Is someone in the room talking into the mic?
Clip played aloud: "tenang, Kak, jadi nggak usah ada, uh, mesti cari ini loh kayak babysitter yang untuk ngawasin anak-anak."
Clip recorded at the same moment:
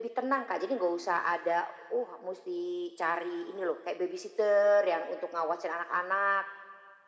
No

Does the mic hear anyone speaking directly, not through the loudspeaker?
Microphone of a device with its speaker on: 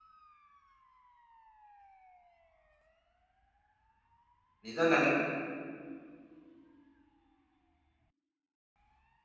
Yes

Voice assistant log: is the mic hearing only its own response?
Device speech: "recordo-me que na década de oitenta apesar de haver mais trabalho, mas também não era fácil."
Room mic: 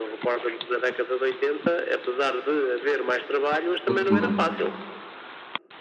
No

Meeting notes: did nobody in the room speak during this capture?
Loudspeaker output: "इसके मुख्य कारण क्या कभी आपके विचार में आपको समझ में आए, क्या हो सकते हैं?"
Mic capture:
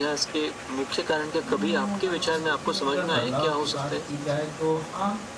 No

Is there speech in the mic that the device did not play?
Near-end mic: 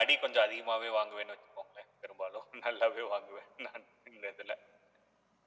No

